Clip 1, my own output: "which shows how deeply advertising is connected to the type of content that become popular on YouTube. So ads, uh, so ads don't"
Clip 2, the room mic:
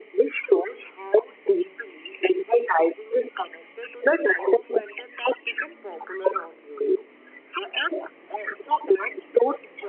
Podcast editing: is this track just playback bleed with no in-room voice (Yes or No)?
Yes